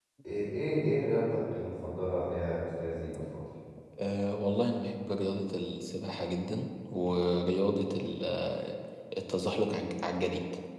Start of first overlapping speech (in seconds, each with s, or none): none